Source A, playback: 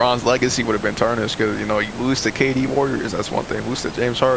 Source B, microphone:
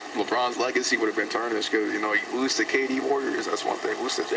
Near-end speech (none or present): none